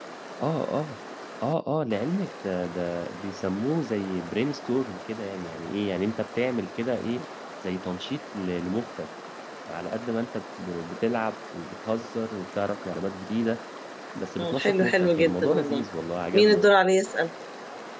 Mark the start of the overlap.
14 s

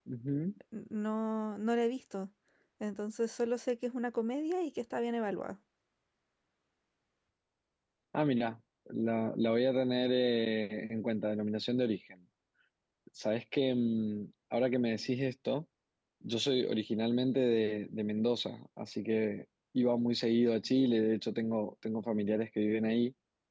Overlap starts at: none

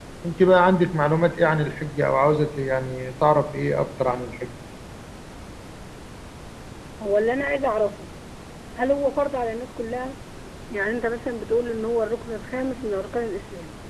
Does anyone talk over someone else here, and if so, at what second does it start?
none

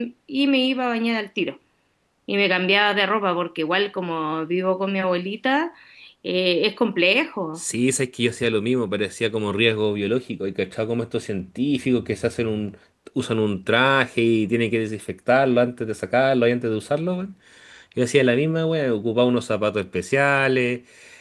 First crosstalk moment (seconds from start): none

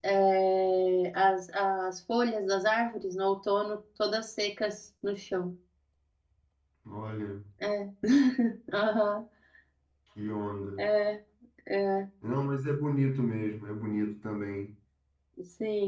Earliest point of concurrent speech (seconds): none

